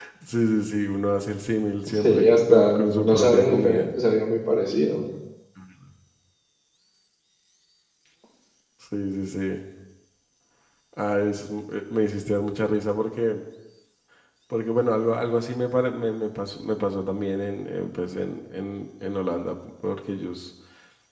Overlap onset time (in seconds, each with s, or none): 2.0 s